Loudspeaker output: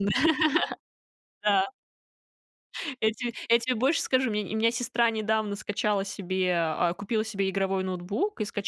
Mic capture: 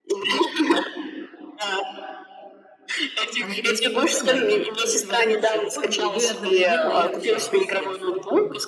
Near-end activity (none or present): present